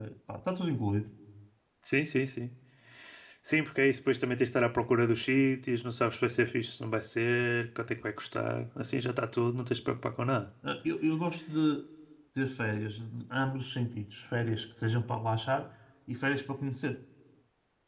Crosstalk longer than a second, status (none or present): none